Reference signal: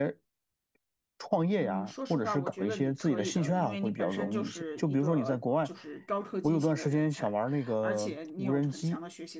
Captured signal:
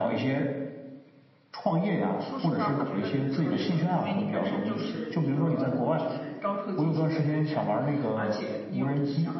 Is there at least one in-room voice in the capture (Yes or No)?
No